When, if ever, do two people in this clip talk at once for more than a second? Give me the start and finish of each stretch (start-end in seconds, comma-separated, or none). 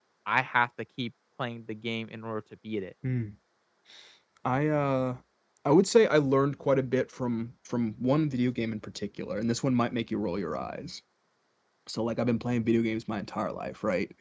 none